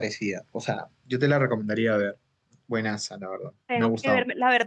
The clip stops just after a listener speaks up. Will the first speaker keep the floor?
No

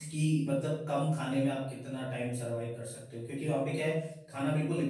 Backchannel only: Yes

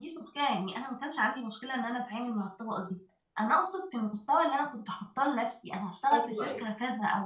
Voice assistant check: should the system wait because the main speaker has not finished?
Yes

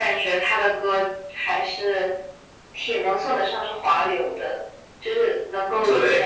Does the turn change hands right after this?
No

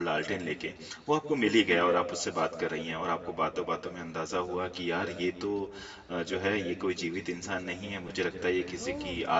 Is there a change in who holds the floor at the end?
No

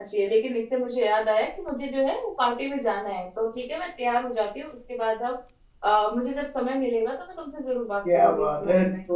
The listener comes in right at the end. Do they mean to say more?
Yes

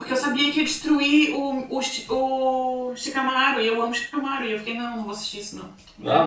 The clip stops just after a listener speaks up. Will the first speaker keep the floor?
Yes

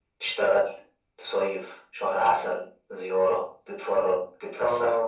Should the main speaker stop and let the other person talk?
Yes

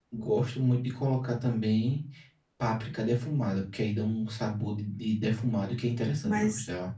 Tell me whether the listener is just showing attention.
No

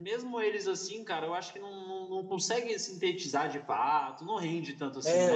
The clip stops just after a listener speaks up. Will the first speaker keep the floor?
No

